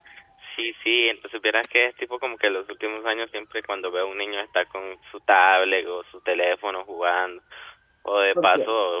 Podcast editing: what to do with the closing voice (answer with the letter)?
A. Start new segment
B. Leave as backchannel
B